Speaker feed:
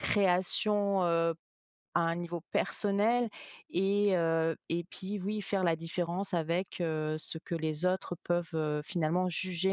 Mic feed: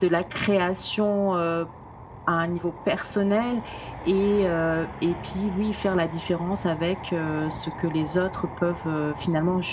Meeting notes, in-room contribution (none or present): none